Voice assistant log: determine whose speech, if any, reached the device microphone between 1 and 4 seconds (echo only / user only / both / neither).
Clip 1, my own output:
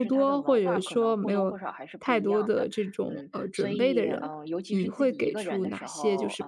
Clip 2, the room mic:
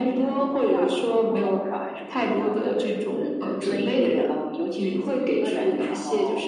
echo only